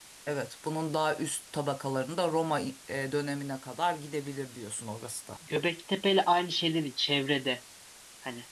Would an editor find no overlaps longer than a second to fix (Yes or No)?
Yes